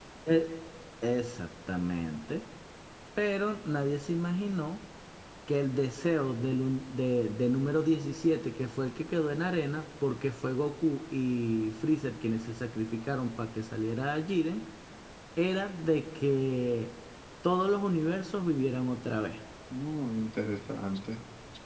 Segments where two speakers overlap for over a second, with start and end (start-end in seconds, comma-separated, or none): none